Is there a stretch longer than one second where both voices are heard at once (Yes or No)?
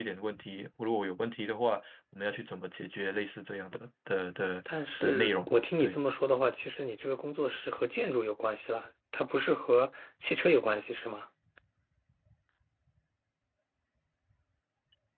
Yes